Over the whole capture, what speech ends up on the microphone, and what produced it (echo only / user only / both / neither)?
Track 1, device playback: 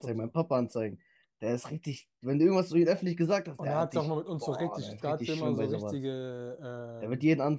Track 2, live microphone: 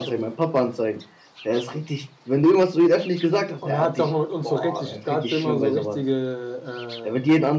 echo only